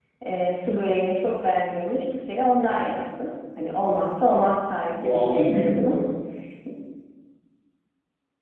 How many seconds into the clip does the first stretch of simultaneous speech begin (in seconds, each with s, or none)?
4.7 s